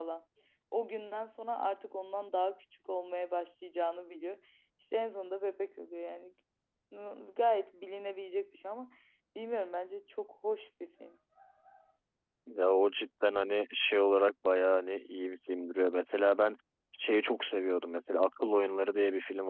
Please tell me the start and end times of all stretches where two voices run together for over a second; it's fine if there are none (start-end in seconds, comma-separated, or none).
none